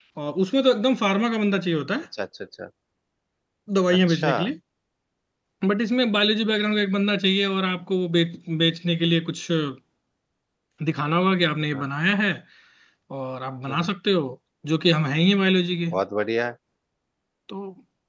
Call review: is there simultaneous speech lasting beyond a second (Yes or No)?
No